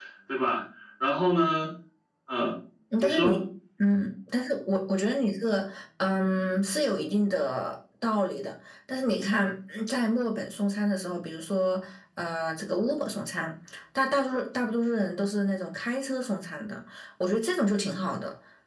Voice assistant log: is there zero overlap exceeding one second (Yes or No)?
Yes